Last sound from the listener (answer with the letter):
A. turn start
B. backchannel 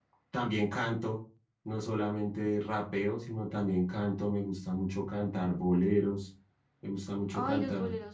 A